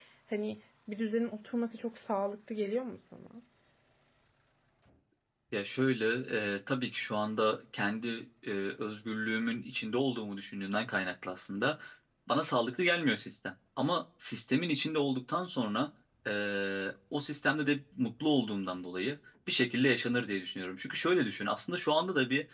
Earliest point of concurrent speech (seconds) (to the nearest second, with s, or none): none